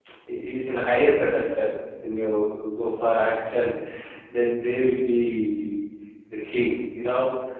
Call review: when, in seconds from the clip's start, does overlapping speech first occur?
none

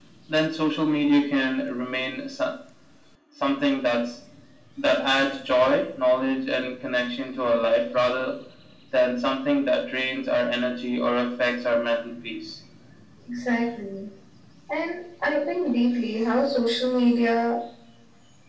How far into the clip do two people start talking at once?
none

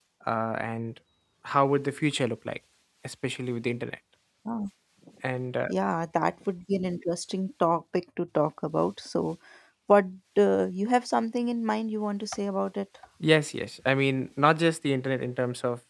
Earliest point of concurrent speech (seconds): none

